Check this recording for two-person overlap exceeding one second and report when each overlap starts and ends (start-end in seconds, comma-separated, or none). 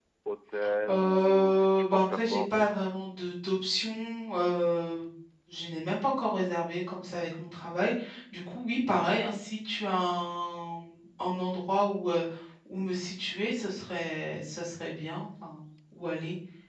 0.9-2.7